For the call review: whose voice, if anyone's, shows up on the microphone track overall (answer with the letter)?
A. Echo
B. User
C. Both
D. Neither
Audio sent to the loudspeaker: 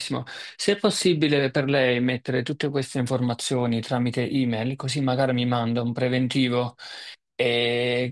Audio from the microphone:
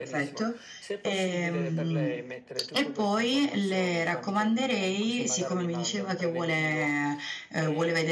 C